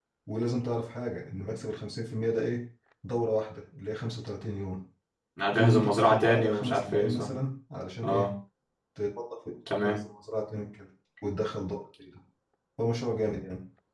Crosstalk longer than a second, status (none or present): present